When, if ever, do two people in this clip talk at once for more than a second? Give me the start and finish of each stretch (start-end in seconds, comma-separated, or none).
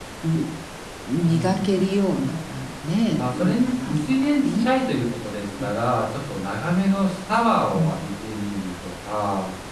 3.2-4.7